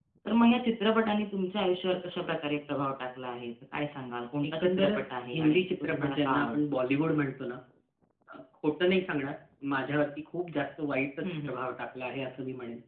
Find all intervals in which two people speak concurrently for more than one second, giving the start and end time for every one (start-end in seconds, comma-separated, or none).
4.5-6.6